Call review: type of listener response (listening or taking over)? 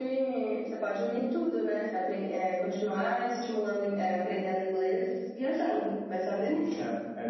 taking over